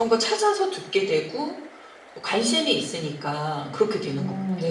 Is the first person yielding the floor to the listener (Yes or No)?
Yes